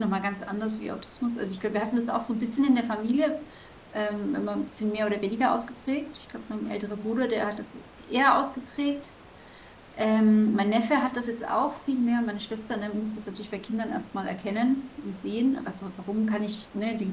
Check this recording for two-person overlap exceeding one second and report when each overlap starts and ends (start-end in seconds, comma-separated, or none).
none